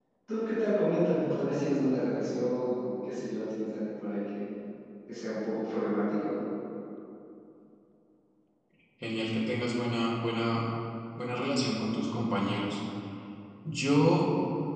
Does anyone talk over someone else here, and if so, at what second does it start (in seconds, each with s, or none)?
none